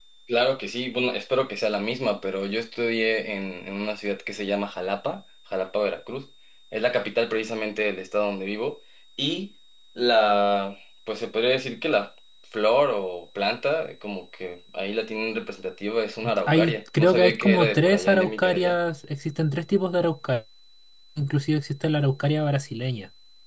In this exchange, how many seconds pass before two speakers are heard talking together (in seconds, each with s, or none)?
16.2 s